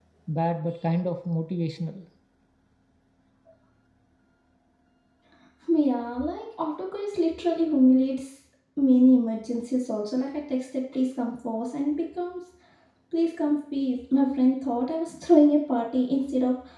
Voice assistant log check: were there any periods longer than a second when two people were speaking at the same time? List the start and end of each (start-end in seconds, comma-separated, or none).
none